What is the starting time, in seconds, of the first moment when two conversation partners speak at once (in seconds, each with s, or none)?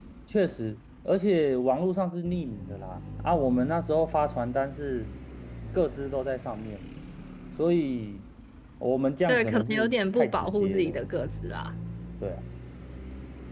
9.3 s